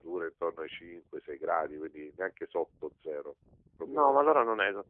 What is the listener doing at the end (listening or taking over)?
taking over